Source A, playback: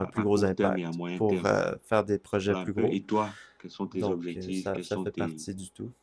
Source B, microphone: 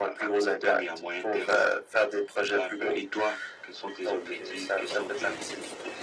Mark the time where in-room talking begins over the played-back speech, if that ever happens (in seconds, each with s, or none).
none